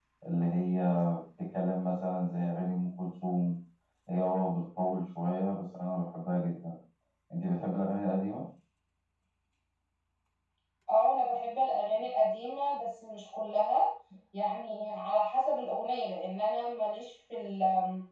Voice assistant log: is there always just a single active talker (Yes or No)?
Yes